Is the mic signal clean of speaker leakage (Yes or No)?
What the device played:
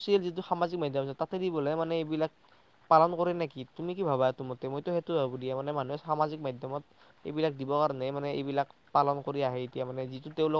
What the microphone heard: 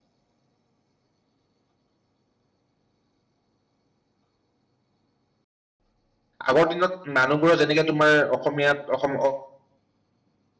Yes